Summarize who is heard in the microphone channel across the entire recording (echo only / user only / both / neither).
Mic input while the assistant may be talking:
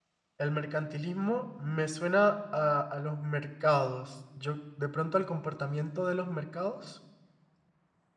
user only